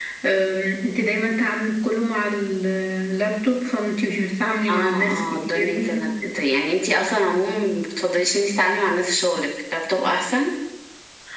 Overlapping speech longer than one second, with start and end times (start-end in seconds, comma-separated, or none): 4.7-6.1